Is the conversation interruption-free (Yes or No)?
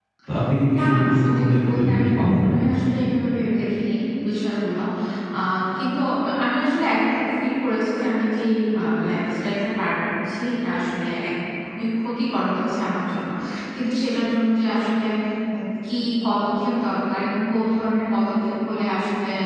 No